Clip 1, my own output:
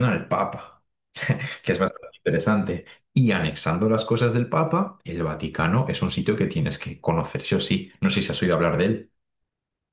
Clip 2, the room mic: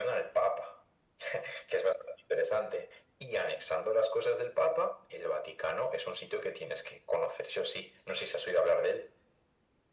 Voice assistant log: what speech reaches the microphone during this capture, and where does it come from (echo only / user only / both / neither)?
echo only